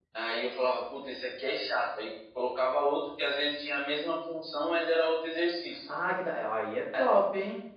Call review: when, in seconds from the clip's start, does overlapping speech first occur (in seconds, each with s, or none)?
none